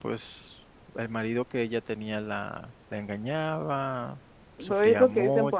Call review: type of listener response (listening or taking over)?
taking over